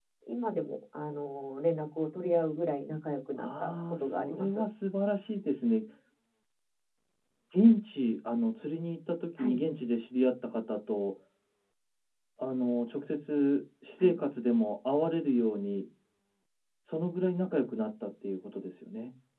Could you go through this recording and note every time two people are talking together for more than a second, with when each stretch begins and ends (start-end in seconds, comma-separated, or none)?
3.4-4.6